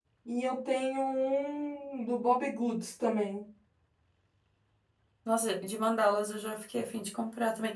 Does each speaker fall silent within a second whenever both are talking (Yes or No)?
Yes